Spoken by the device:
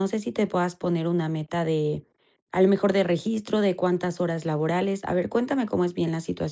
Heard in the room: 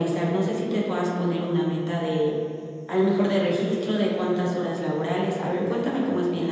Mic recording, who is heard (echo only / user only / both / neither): echo only